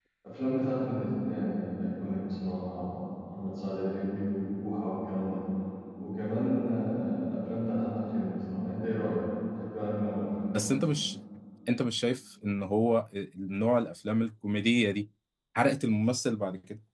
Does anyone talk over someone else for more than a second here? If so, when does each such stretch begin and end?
none

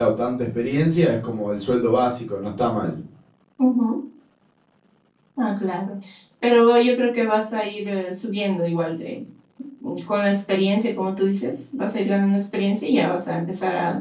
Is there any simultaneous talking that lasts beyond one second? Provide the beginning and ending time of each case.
none

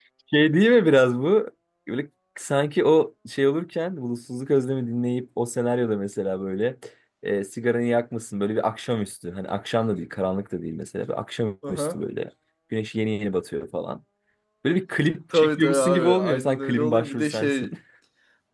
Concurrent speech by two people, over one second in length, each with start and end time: 15.3-17.7

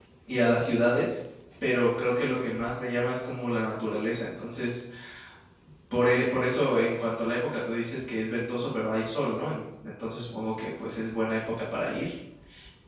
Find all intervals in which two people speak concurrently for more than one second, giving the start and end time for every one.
none

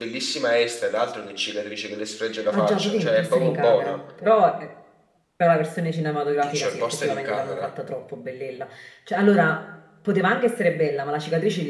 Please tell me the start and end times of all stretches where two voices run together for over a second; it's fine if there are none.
2.5-4.0, 6.5-7.7

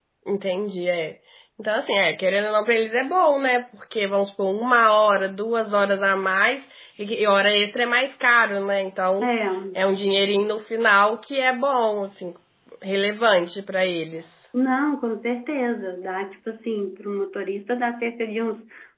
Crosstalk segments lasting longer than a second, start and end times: none

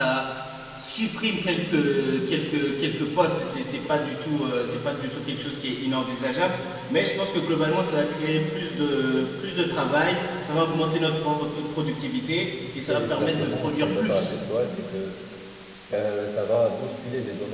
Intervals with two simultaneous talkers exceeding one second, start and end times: 12.8-14.4

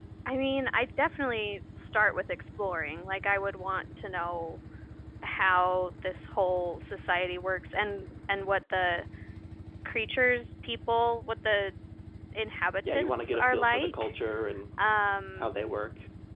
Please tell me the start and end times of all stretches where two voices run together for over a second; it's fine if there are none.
12.9-14.1

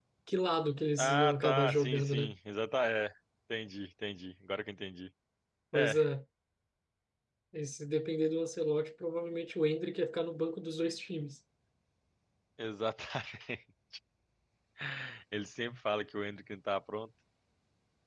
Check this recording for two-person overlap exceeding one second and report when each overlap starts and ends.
1.0-2.3

